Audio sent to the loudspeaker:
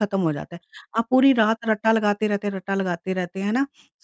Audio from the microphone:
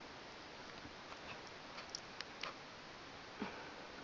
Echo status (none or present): none